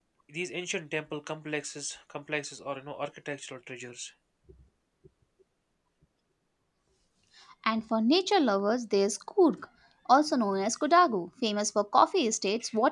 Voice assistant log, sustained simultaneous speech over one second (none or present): none